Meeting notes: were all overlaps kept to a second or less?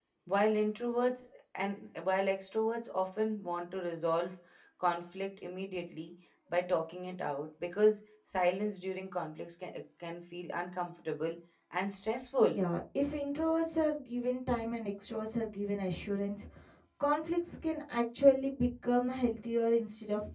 Yes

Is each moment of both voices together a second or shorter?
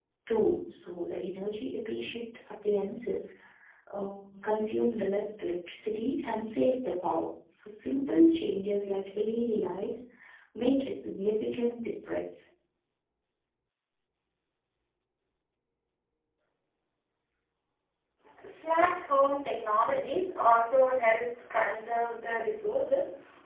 Yes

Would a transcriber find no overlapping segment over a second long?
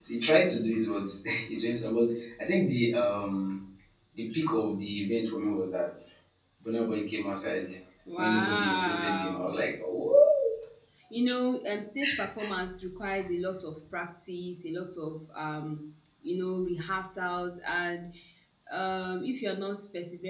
No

